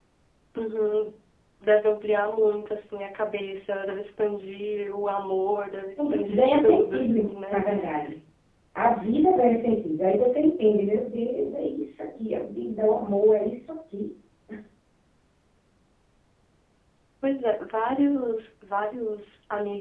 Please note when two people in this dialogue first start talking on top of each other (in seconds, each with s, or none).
6.0 s